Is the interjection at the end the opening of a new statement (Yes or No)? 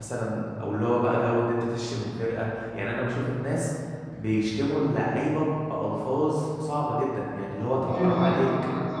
Yes